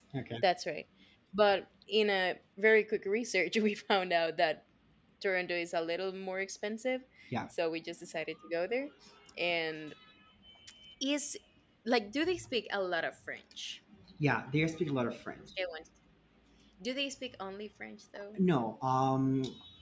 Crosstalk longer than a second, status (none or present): none